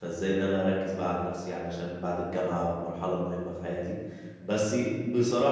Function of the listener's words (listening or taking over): listening